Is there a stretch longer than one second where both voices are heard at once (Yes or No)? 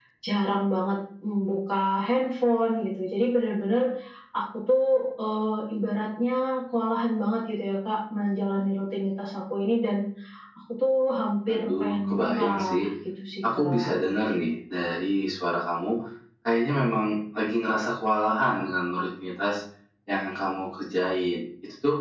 Yes